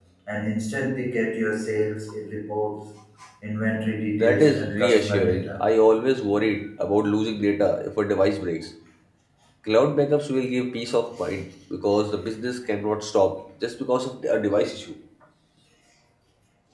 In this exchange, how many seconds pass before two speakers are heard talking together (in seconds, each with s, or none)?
4.1 s